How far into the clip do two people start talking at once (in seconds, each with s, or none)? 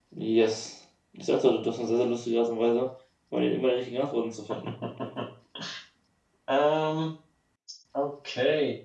none